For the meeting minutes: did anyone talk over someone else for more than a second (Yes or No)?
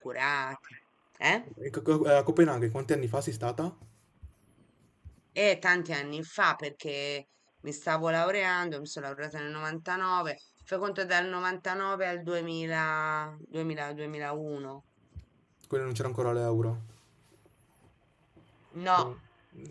No